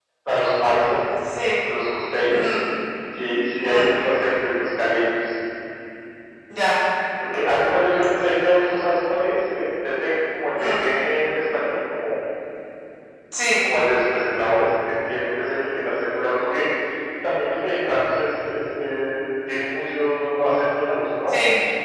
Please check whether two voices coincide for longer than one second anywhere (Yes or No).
No